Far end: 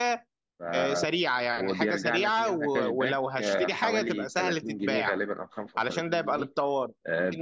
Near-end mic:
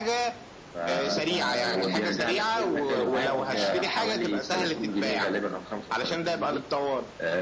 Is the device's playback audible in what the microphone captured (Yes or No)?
Yes